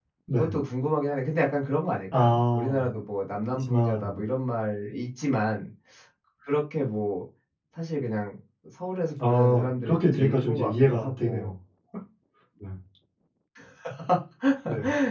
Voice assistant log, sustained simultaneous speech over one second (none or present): present